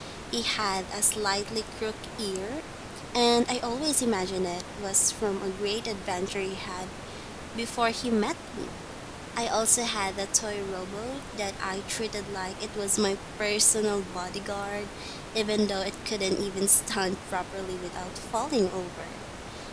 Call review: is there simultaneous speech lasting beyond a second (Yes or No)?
No